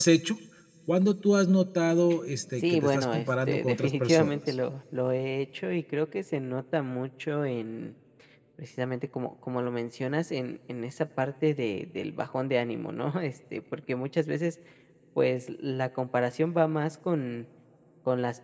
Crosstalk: present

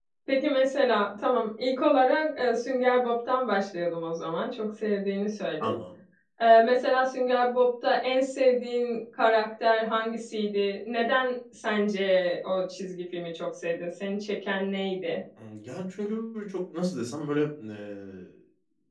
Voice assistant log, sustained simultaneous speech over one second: none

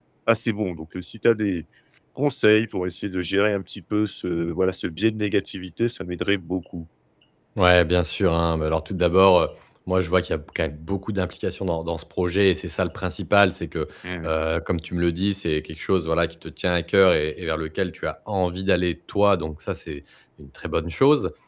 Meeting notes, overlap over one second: none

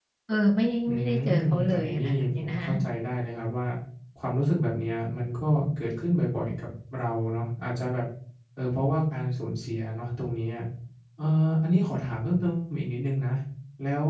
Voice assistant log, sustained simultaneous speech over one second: present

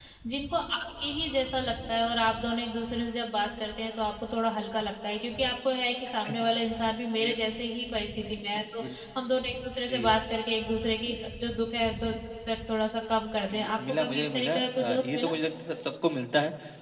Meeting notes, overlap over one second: present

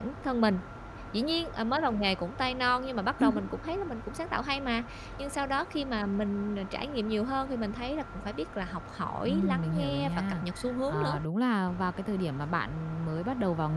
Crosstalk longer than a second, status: present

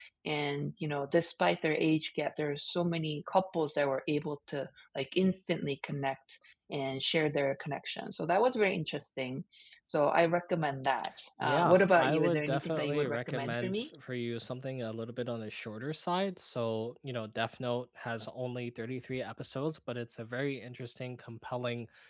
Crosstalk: present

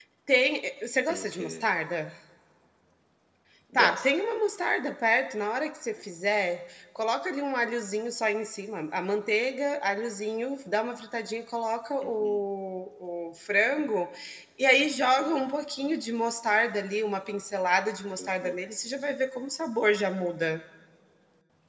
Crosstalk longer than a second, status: none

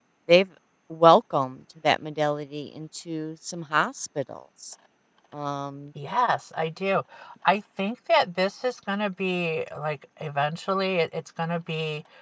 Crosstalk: none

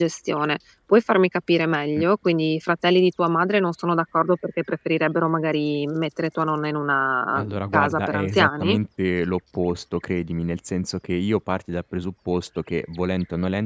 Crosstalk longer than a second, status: present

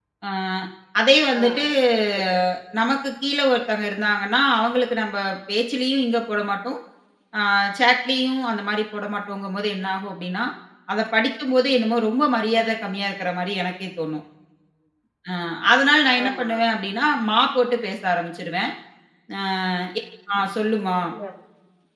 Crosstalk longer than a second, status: none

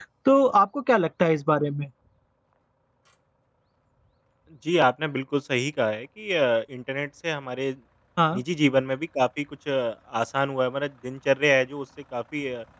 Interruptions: none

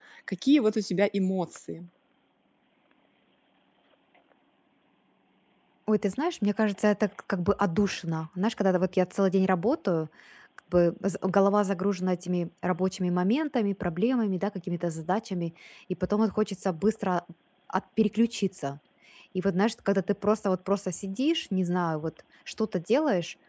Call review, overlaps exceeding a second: none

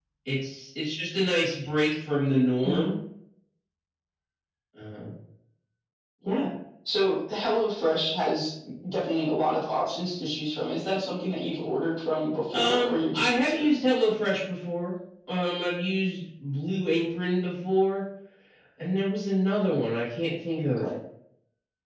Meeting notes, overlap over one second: present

